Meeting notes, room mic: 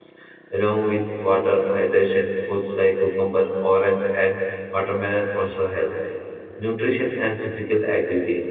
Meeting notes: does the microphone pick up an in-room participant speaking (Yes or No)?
Yes